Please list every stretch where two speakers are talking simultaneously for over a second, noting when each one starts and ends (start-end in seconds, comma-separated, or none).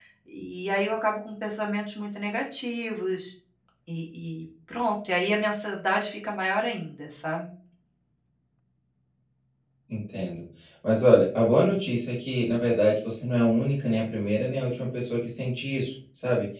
none